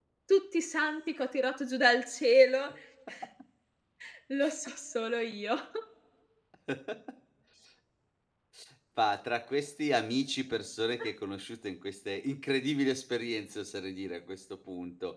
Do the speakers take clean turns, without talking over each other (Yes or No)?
Yes